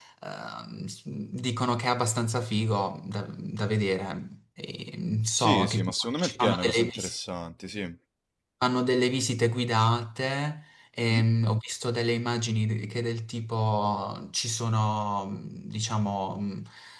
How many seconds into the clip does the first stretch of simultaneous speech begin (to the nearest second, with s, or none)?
5 s